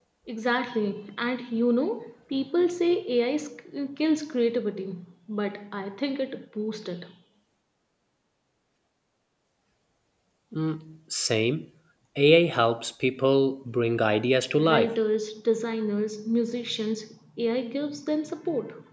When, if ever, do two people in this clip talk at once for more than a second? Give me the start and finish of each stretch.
none

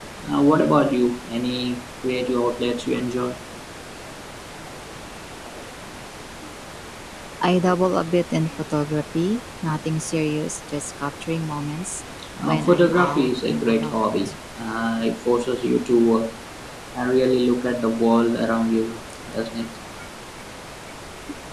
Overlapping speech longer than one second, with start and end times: 12.4-14.0

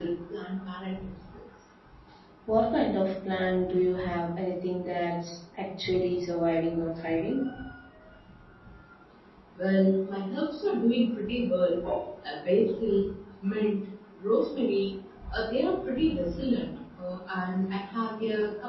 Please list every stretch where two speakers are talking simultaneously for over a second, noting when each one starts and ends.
none

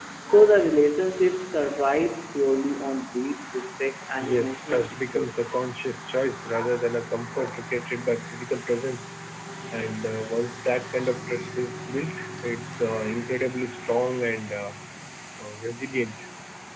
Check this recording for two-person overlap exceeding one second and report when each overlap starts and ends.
4.2-5.6

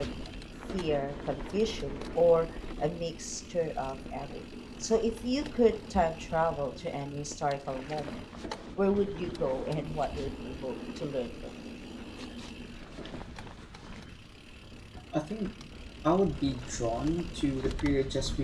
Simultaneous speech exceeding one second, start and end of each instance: none

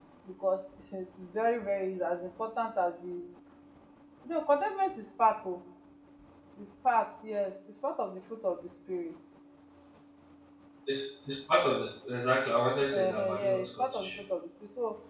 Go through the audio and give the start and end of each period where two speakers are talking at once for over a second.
12.9-14.2

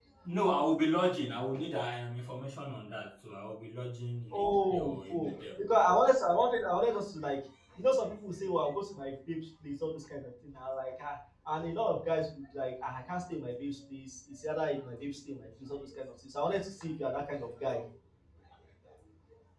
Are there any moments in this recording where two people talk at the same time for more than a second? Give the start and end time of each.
4.3-5.6

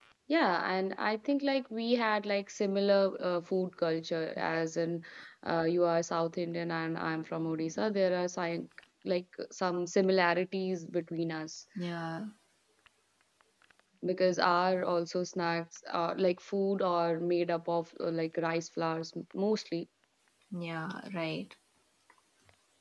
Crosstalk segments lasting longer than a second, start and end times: none

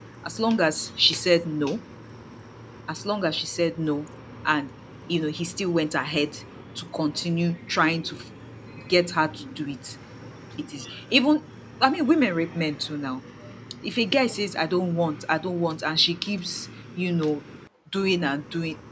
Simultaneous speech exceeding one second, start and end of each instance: none

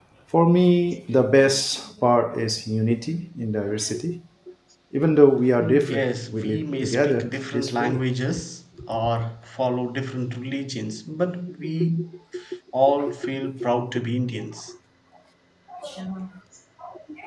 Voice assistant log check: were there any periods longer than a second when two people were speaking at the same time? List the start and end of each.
5.6-8.1

